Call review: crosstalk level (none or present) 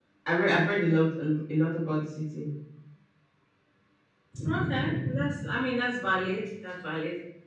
none